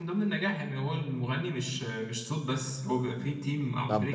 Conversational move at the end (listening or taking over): taking over